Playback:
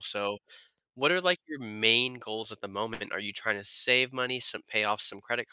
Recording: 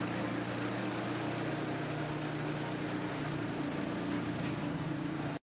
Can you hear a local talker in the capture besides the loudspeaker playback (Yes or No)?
No